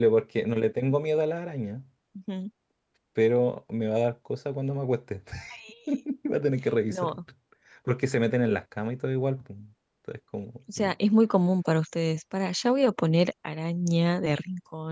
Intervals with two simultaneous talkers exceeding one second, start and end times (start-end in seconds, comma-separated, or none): none